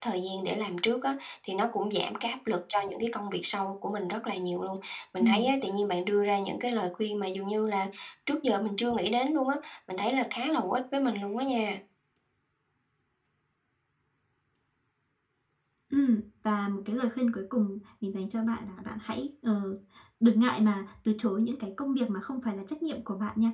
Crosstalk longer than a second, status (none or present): none